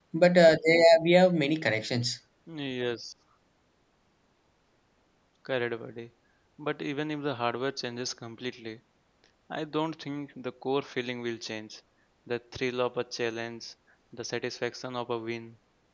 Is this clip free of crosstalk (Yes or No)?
Yes